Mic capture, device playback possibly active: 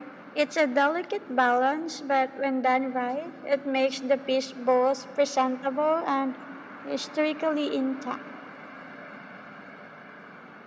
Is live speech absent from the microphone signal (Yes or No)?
Yes